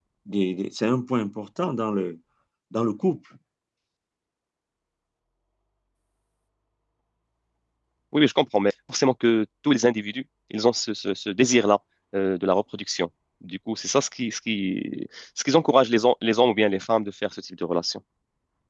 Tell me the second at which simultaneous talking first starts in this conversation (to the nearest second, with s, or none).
none